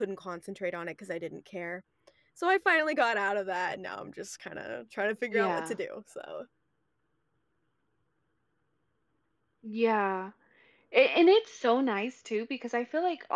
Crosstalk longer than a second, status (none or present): none